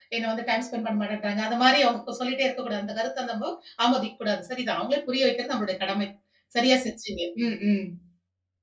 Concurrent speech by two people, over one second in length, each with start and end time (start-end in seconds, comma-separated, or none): none